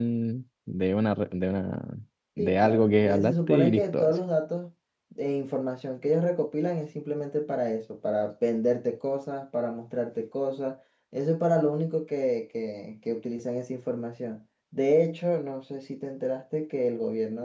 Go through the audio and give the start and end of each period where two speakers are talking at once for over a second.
2.4-4.1

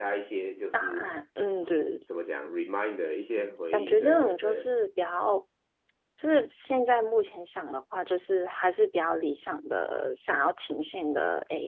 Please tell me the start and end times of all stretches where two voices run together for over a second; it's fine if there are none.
3.4-4.7

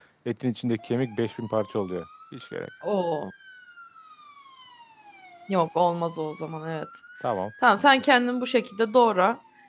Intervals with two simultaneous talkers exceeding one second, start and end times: none

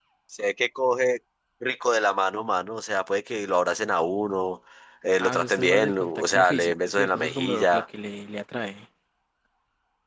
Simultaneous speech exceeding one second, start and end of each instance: 5.2-7.8

